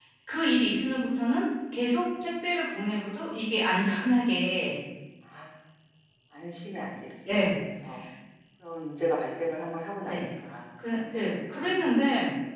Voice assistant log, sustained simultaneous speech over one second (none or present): none